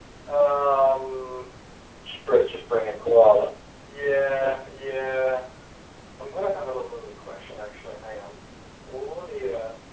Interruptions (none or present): none